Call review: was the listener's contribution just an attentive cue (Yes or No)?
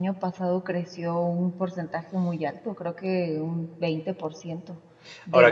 Yes